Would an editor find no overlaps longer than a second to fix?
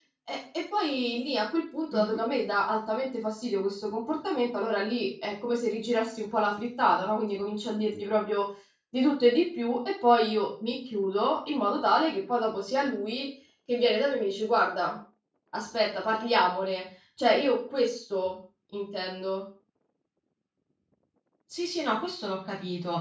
Yes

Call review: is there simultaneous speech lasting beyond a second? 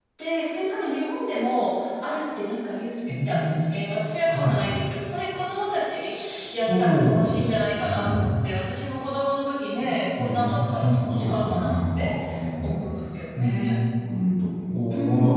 Yes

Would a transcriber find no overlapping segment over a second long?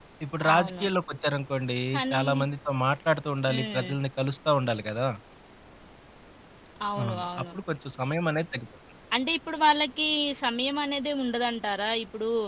Yes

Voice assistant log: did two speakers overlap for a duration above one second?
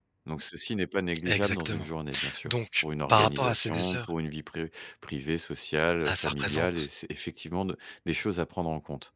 Yes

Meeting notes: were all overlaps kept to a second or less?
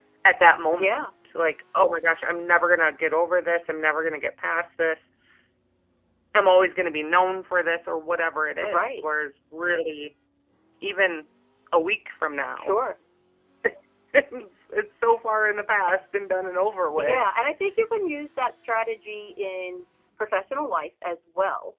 Yes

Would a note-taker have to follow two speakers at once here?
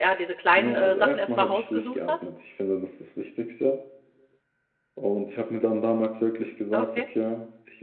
Yes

